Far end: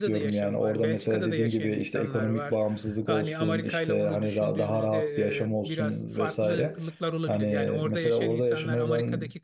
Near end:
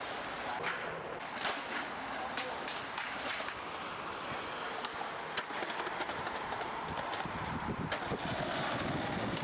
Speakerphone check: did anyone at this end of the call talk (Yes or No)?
No